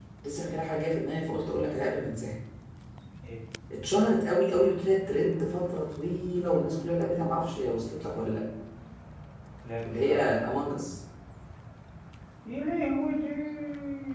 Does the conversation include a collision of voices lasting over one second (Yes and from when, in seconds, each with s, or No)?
No